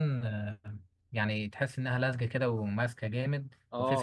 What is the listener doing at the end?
taking over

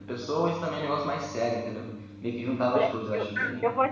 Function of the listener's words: taking over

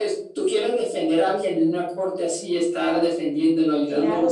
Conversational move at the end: taking over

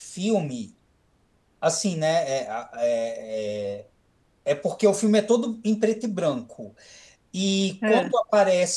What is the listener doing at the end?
listening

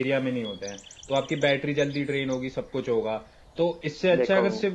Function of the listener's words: listening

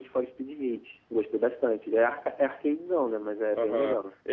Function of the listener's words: taking over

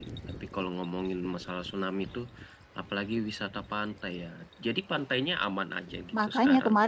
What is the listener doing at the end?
taking over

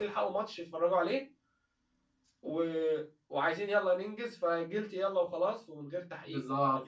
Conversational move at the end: taking over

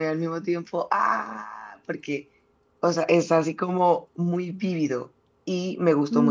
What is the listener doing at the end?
listening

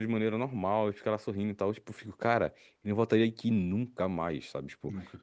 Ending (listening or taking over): listening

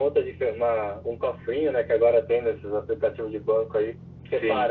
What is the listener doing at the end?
listening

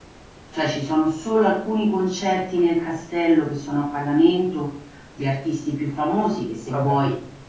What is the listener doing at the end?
listening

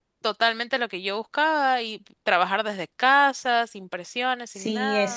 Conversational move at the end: taking over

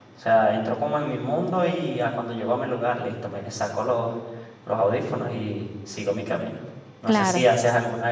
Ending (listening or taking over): listening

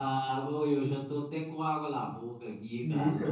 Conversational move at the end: taking over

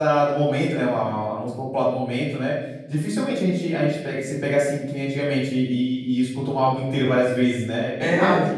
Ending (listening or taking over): taking over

